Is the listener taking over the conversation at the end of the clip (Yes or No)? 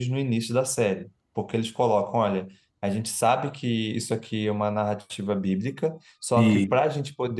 No